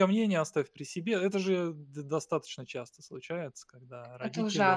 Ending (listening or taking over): listening